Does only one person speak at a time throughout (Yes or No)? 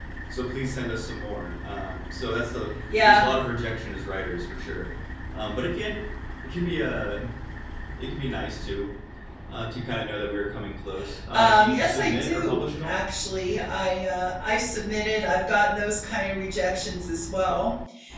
No